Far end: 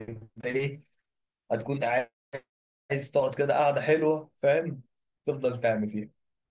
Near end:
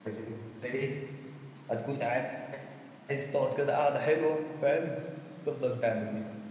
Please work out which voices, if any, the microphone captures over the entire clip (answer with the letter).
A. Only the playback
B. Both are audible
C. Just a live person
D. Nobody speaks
A